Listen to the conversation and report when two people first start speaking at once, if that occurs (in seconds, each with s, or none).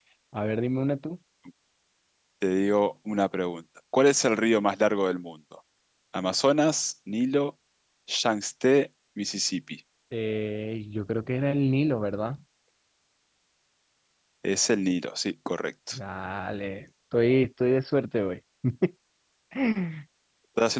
none